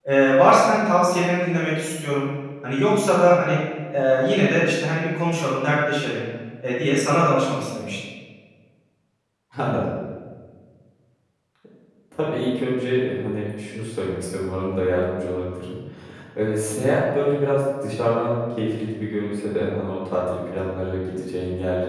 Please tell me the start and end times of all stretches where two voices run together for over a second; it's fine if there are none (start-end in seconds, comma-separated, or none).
none